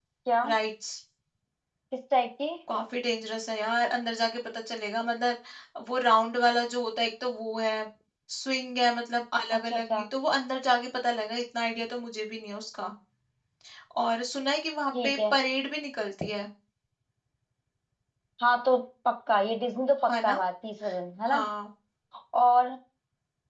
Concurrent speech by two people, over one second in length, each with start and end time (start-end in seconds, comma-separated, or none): none